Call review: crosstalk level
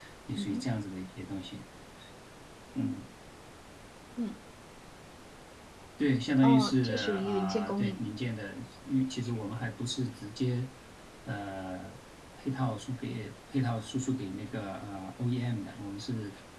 present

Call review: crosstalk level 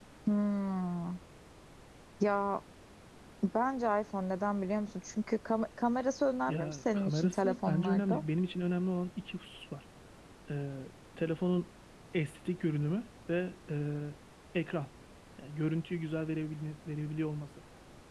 present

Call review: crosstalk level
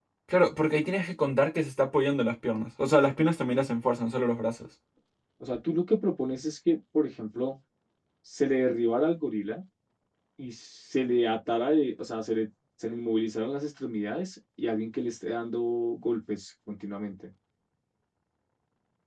none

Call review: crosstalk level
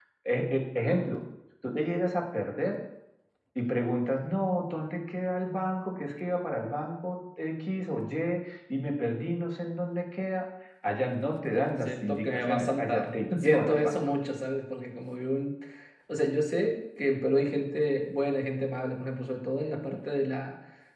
present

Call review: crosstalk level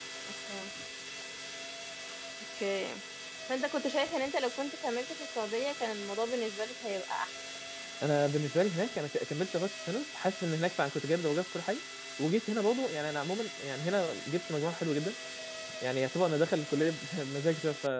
none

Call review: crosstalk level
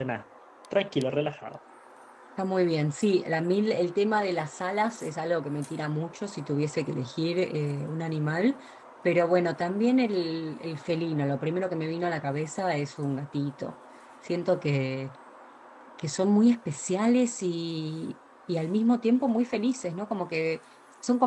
none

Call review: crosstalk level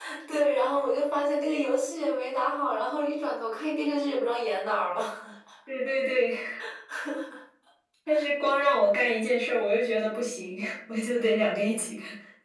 none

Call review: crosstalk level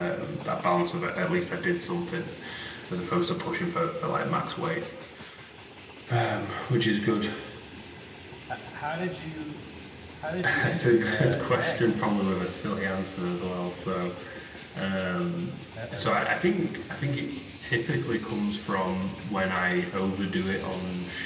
present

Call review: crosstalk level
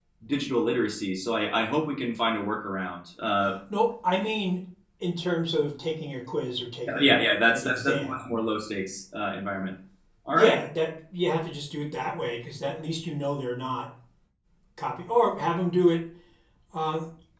present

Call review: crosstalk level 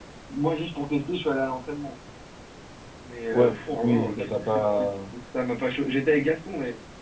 present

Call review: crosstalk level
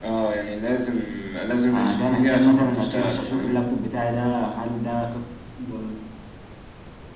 present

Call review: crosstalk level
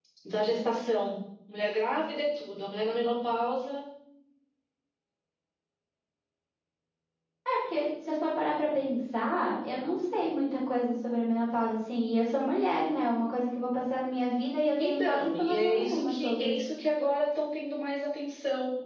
present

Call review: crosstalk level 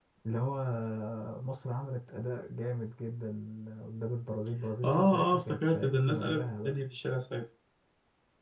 present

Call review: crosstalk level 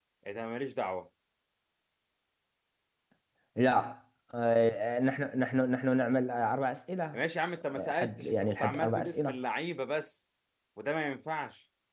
present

